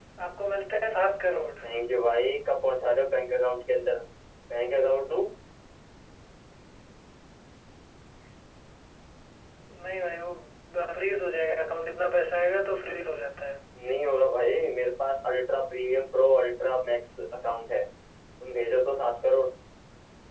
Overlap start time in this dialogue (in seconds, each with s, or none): none